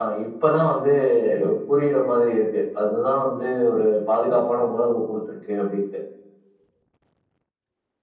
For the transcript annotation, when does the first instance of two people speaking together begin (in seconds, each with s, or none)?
none